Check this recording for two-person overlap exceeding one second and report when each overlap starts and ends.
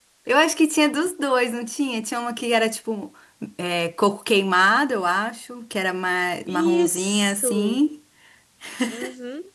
6.5-7.7

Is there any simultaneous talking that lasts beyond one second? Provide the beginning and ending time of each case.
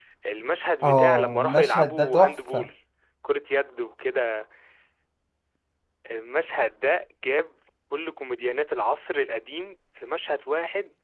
0.8-2.7

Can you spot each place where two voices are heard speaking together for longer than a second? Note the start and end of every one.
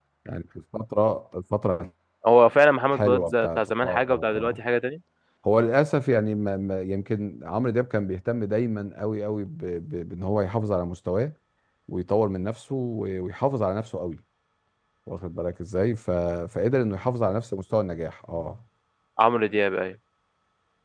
2.9-4.6

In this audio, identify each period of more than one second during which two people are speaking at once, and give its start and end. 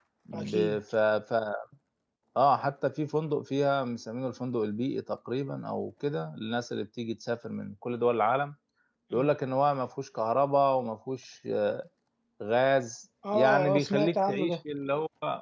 13.3-14.6

